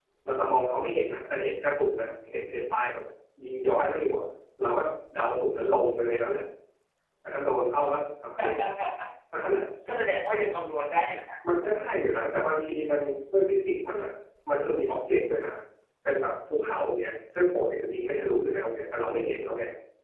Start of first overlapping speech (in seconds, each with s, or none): none